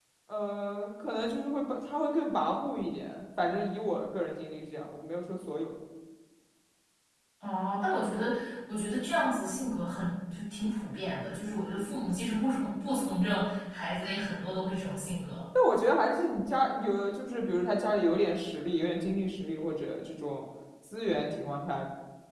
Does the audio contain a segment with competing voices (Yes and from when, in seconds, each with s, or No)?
No